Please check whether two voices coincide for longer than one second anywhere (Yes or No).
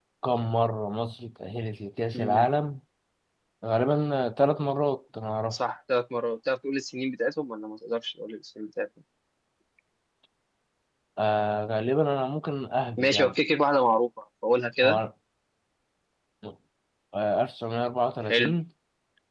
No